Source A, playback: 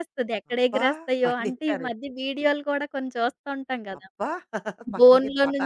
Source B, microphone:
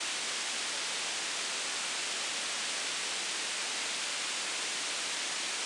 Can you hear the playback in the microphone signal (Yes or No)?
No